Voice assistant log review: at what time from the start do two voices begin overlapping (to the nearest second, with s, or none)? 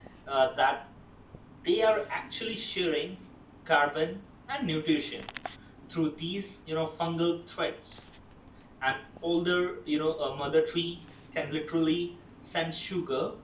none